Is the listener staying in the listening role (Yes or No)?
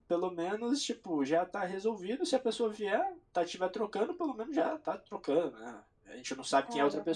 Yes